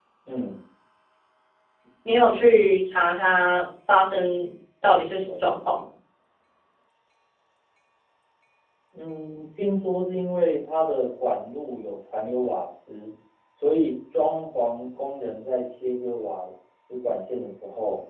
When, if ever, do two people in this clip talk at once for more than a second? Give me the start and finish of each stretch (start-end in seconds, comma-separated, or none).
none